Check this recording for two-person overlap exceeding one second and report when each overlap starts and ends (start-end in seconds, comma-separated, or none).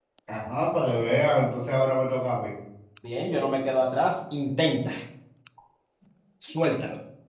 none